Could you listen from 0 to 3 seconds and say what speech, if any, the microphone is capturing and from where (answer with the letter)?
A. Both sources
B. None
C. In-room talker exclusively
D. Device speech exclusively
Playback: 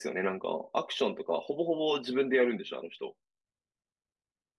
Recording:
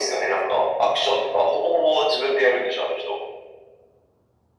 D